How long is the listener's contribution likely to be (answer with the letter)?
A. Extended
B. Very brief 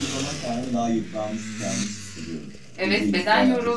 A